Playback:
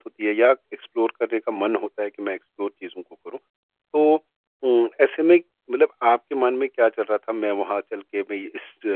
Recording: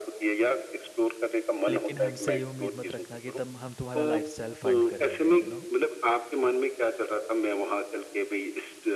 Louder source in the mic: echo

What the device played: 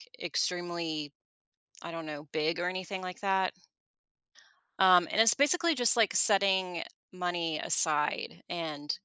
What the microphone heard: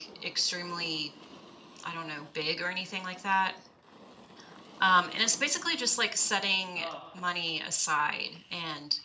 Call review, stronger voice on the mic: echo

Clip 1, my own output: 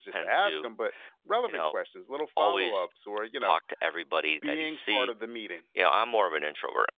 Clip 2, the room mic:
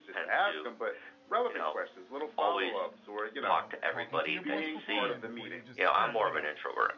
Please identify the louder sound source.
echo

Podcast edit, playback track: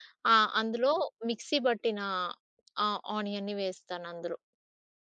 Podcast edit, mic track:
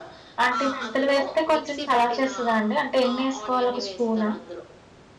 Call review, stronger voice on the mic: user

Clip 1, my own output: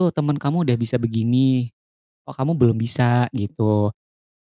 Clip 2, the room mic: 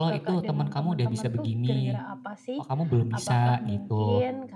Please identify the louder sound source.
echo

